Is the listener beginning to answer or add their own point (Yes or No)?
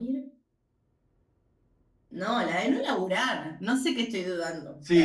Yes